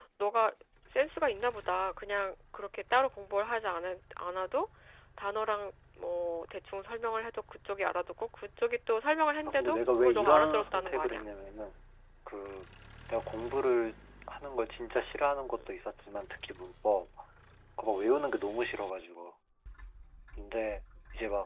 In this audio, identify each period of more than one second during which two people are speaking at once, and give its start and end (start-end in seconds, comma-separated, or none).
9.4-11.2